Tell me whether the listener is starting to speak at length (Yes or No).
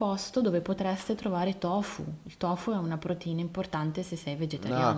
Yes